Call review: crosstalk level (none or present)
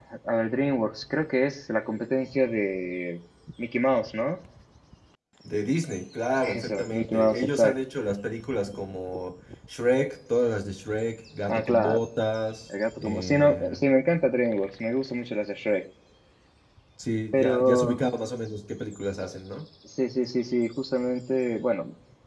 present